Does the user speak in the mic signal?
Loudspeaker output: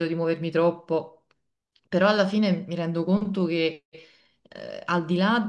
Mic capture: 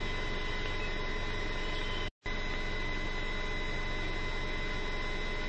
No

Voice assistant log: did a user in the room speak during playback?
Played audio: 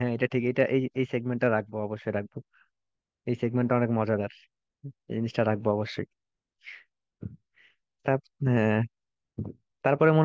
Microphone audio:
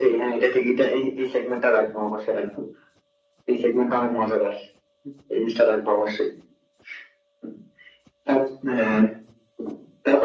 No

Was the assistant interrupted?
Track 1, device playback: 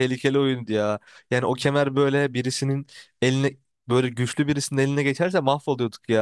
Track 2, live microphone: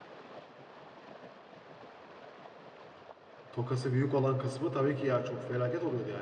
Yes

